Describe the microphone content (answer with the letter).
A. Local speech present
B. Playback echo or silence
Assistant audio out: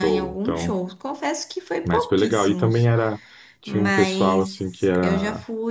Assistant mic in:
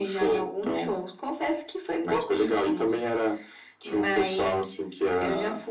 B